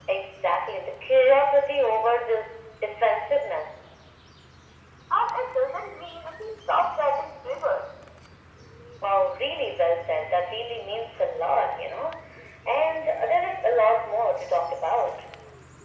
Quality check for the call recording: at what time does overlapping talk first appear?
none

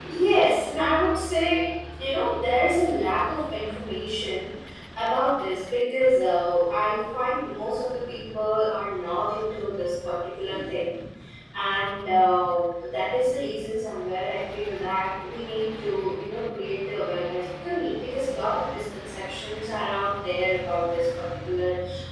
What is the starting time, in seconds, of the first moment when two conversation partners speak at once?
none

